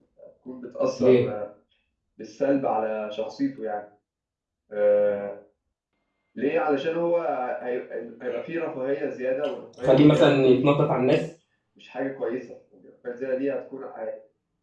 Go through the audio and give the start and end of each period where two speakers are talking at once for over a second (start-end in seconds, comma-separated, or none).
9.8-11.1